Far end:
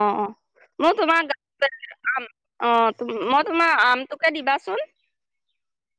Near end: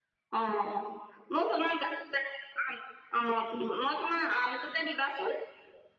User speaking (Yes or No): No